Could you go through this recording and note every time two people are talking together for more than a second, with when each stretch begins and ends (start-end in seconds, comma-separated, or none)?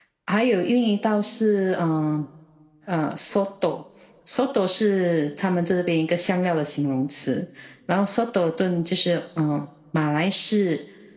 none